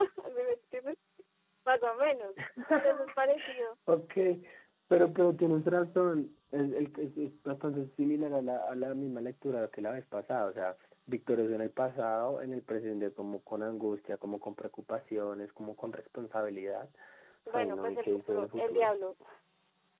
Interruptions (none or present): present